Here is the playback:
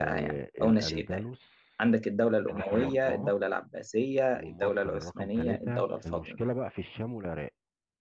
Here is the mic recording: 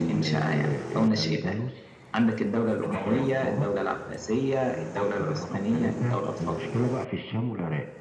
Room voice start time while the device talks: none

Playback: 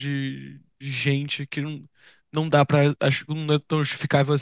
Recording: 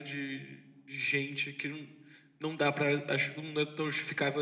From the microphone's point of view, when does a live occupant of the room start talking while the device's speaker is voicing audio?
none

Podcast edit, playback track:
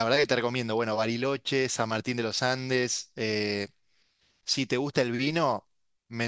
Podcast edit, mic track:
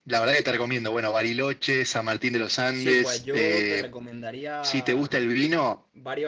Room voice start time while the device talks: 2.7 s

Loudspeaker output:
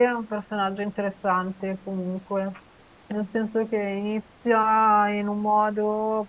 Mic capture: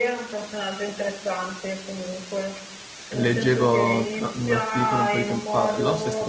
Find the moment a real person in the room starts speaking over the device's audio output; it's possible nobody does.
3.1 s

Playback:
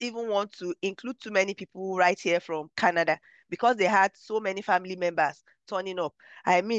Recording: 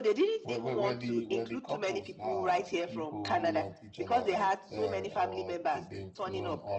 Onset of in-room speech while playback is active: 0.4 s

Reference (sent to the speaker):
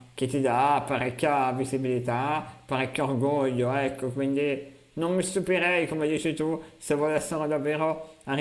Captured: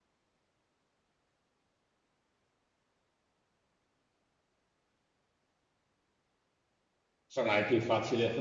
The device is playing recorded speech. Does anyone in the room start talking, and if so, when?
7.2 s

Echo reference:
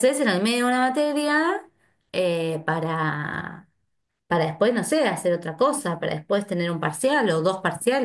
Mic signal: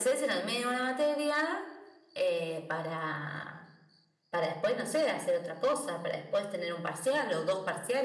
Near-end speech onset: none

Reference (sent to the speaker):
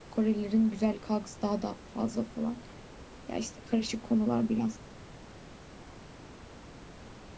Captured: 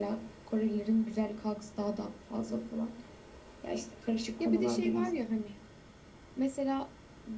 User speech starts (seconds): 4.4 s

